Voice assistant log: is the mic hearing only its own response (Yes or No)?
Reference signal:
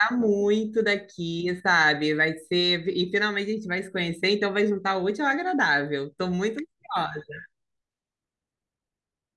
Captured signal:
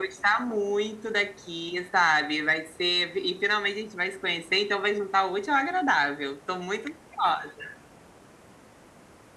Yes